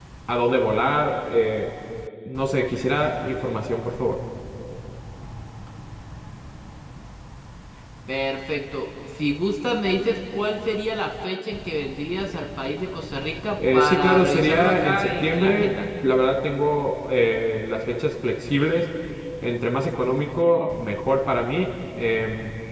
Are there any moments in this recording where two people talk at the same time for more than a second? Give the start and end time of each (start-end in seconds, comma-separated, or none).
13.7-15.7